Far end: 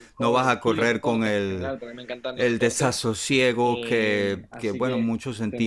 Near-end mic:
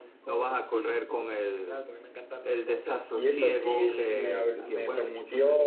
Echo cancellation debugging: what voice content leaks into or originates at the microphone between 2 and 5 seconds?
both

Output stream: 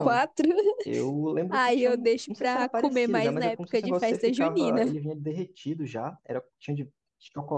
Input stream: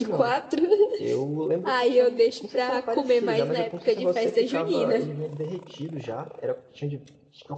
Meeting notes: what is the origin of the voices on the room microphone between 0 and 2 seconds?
echo only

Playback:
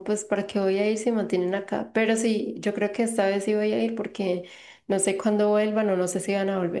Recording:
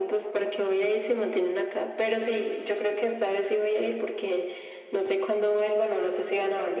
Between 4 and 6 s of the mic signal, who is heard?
echo only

